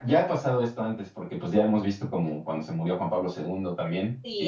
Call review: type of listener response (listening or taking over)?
listening